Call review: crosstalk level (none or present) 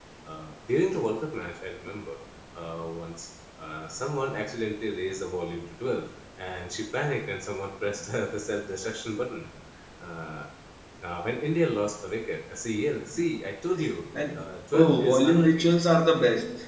present